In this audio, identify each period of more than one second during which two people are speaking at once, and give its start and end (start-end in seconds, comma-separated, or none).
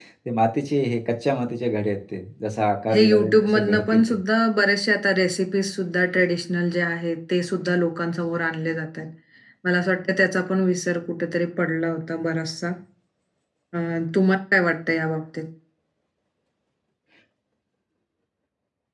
2.9-4.2